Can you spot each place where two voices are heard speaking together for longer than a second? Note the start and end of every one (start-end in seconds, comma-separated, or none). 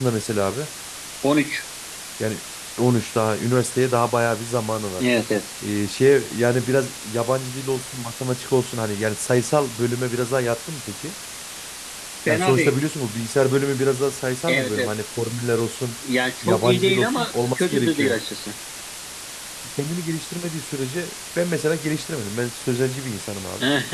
16.4-18.1